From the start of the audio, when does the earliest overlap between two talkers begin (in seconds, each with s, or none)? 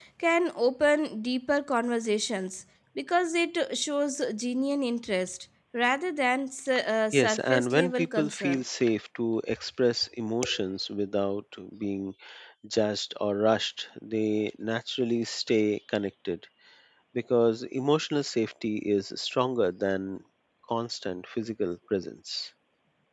7.1 s